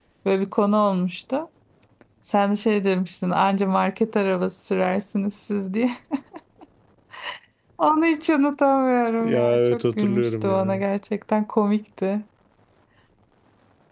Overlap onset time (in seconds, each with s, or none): 9.2 s